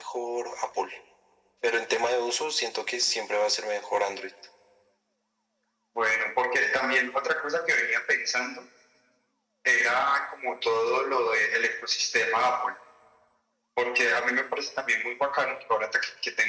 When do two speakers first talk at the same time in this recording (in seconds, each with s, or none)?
none